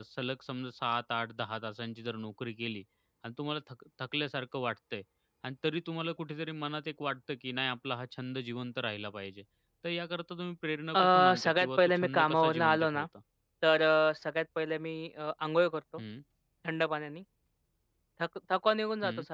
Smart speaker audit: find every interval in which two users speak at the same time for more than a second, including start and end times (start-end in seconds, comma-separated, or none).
11.0-13.1